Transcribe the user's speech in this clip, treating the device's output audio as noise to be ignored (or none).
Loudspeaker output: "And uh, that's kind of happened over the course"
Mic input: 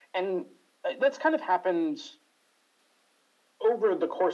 none